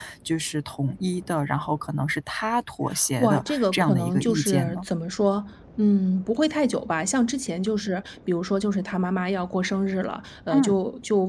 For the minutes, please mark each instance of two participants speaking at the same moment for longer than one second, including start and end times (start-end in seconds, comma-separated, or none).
3.2-4.8